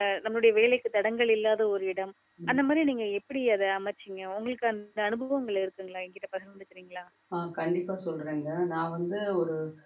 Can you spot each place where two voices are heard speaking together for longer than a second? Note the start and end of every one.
none

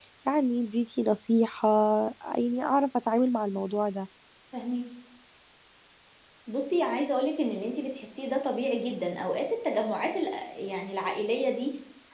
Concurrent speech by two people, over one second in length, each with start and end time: none

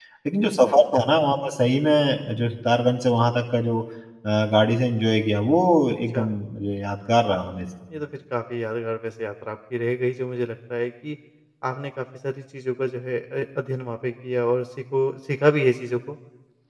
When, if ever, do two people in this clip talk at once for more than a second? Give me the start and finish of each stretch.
none

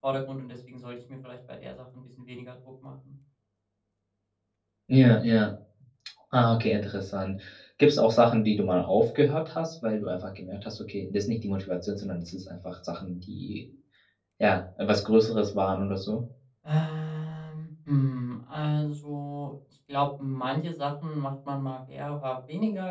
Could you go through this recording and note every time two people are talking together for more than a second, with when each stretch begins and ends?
none

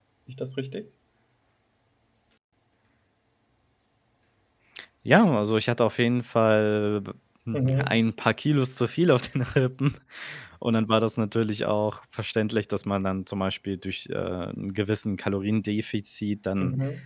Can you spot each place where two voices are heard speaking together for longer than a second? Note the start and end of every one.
none

